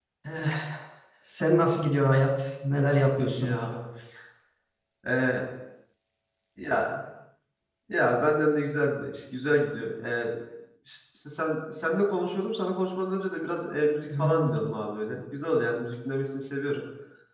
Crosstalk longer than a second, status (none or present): none